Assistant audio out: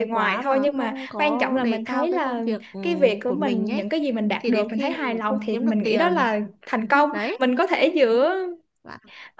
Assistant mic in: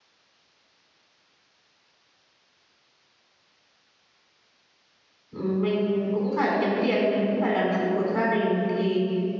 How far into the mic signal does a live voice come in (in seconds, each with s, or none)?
5.3 s